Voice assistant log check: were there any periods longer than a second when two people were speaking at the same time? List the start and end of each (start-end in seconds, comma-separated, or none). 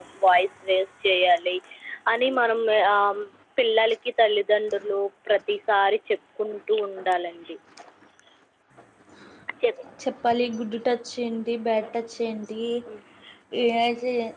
none